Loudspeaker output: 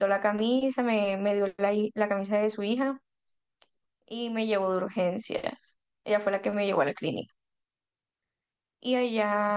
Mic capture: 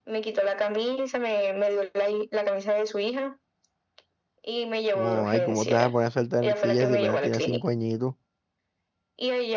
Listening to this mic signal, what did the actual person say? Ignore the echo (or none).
Oh, ay, ¿cómo te vas a poner a saltar en sillas si apenas tenías cinco añitos?